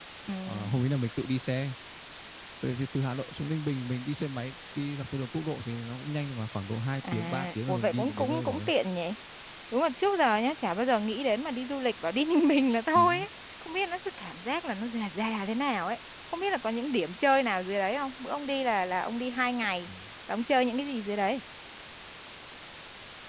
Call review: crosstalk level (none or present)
present